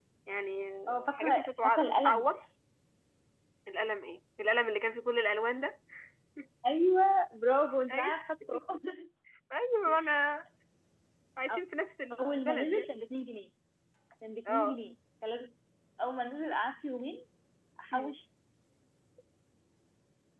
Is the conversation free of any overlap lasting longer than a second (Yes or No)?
No